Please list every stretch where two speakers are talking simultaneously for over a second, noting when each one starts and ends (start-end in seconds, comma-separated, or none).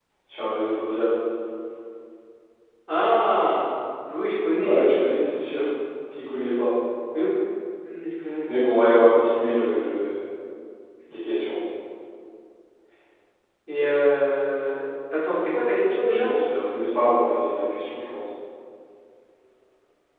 none